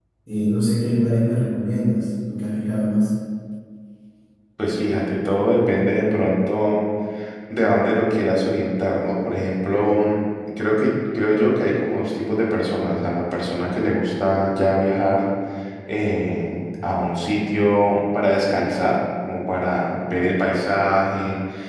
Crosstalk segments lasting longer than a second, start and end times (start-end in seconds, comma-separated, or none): none